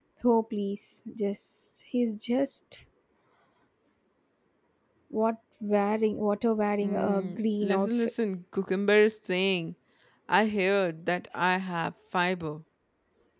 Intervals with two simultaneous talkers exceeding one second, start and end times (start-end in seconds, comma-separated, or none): 6.8-8.1